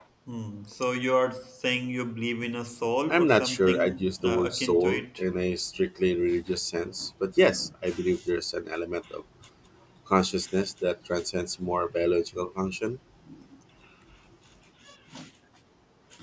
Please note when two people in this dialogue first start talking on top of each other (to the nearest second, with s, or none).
3 s